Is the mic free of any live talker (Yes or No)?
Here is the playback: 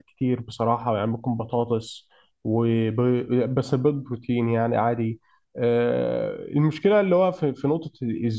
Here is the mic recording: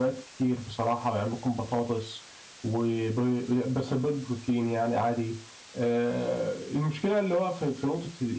Yes